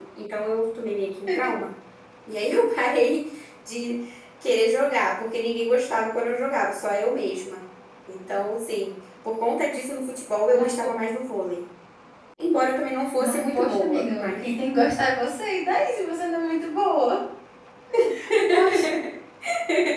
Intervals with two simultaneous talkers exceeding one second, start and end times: 13.2-14.5

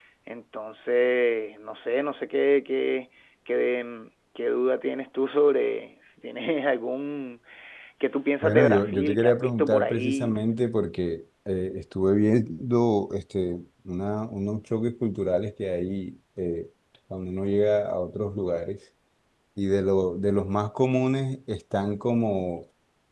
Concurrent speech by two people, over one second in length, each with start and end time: 8.4-10.3

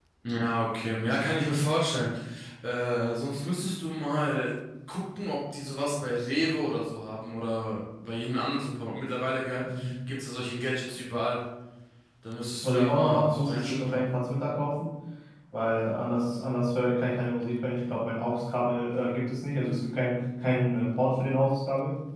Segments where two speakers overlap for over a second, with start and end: 12.6-14.0

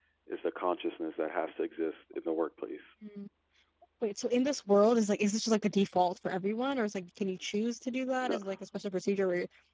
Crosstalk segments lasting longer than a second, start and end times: none

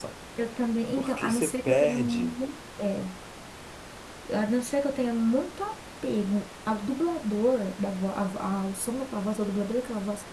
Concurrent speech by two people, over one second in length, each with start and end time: 1.0-2.3

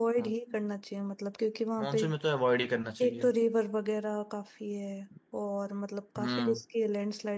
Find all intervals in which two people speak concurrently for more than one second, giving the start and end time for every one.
none

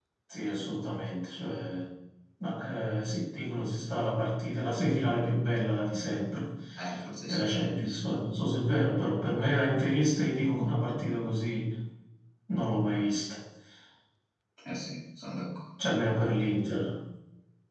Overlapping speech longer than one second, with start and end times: none

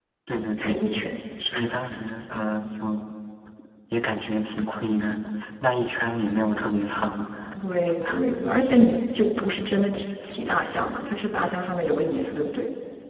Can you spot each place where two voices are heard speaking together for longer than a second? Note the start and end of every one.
none

